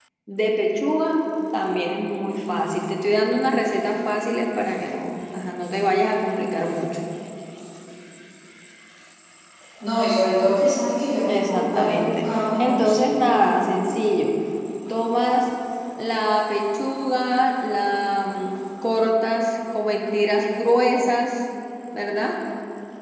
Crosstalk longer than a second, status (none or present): present